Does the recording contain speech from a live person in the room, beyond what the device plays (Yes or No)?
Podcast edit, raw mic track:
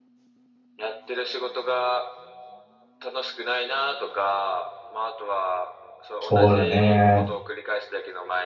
Yes